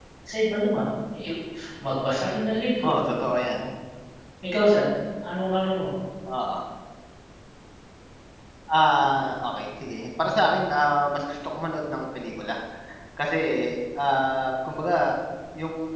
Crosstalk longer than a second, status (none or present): none